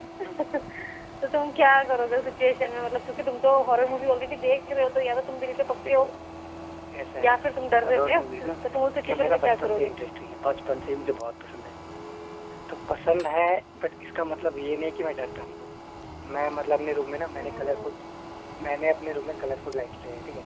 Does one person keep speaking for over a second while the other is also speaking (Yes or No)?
Yes